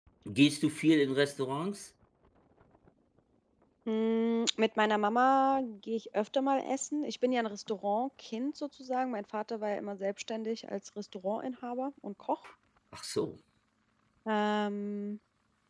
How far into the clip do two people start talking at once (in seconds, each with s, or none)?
none